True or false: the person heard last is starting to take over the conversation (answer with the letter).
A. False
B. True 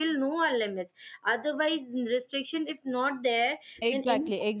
B